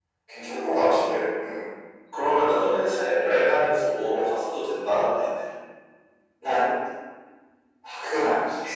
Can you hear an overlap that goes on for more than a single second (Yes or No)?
No